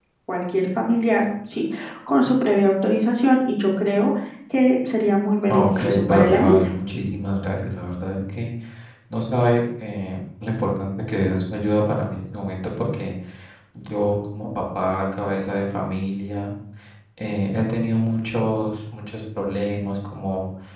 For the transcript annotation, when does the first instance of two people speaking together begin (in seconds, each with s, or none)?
5.5 s